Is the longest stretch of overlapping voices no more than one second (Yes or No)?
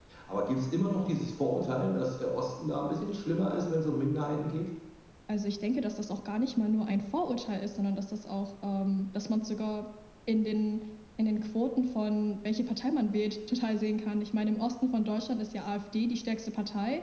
Yes